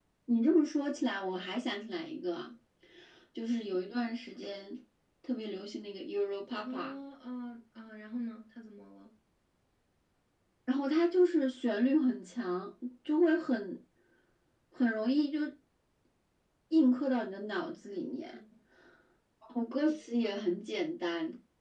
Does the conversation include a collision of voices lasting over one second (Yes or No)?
No